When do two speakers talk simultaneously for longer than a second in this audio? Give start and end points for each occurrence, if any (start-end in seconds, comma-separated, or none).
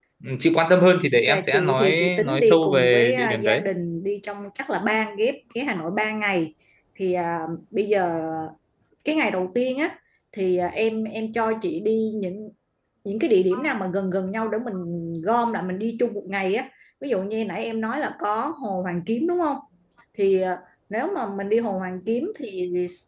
1.1-3.6